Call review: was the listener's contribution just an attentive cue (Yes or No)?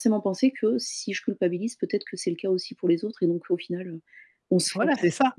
No